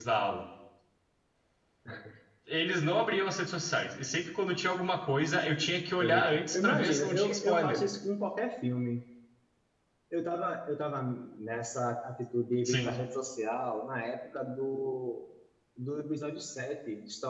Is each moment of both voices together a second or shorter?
No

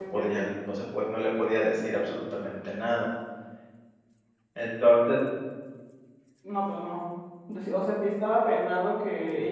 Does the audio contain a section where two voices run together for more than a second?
No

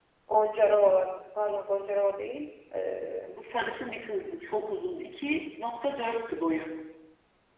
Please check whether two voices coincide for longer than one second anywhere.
No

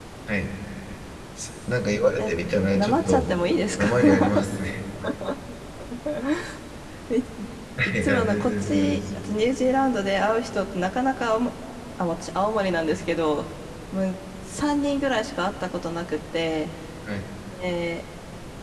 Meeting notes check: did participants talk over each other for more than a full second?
Yes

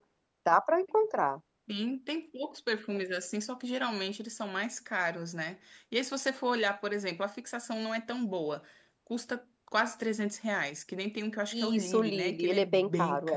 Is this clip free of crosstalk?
No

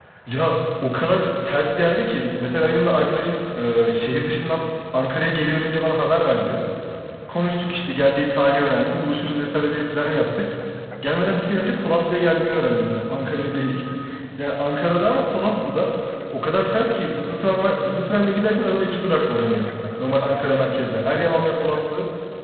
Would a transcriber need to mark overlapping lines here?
No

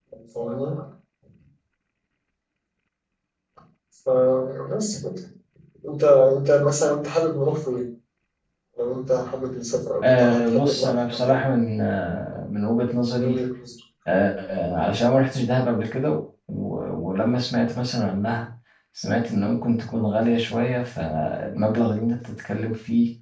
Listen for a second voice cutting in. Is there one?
Yes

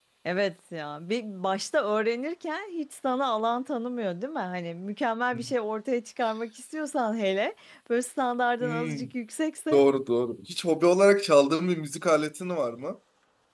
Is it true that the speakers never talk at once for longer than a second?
Yes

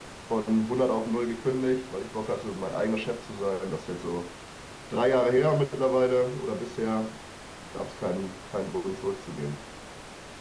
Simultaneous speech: No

